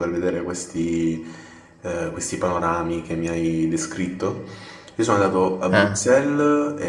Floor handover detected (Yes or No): No